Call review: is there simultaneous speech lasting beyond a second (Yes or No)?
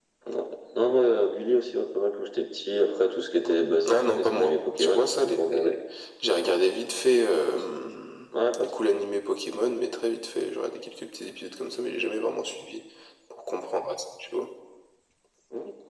Yes